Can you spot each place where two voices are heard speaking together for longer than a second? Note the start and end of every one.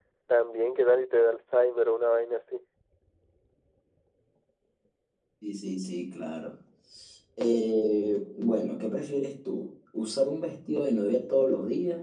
none

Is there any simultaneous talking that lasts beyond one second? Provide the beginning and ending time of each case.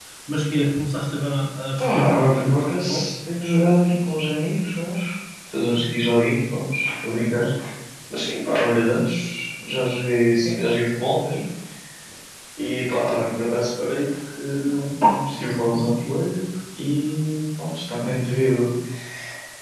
1.8-3.0

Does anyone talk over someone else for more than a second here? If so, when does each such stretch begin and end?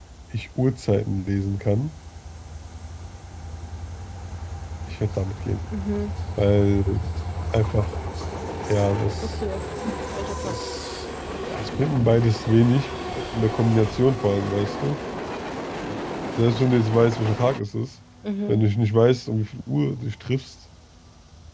none

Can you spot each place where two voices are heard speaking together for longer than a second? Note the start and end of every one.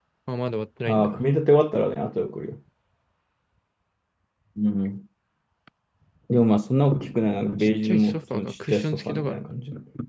7.8-9.4

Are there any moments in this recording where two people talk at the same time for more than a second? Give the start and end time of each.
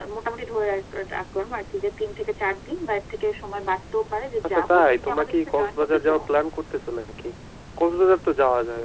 4.4-6.2

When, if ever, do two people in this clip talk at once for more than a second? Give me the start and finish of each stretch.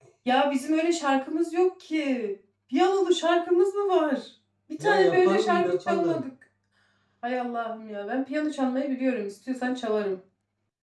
4.8-6.2

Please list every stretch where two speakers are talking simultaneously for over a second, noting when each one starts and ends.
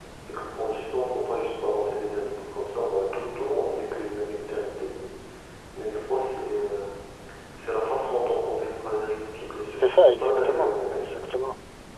9.8-11.2

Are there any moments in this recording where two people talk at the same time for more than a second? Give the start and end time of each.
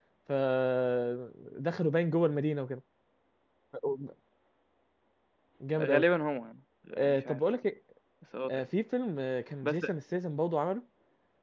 none

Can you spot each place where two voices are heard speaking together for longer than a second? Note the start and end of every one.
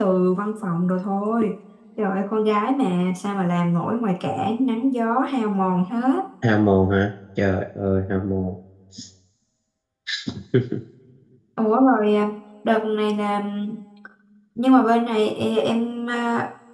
none

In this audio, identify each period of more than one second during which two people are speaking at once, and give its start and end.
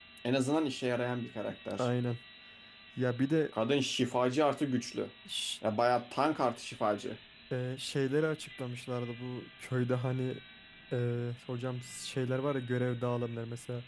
none

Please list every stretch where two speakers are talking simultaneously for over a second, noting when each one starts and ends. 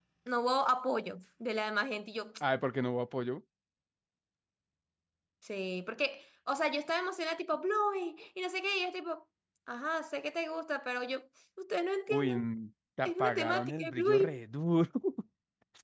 13.0-14.3

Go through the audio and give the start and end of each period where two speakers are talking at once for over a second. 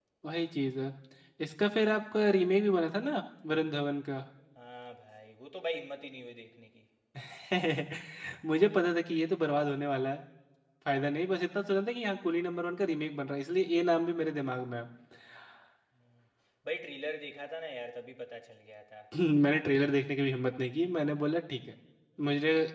none

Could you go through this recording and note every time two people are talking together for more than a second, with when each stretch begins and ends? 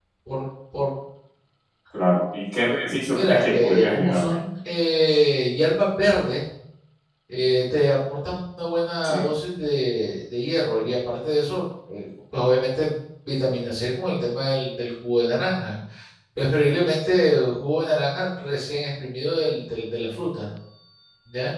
3.1-4.4

